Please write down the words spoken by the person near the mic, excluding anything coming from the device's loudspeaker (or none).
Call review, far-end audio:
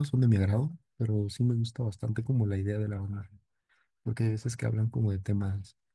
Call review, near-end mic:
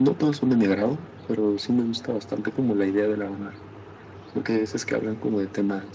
none